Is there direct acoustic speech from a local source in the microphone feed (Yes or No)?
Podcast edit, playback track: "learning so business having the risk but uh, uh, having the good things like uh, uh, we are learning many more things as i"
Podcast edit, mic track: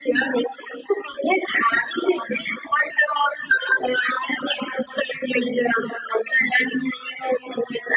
No